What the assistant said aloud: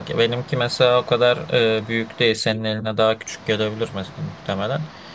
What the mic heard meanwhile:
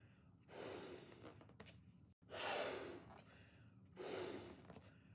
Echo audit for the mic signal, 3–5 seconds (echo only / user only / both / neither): neither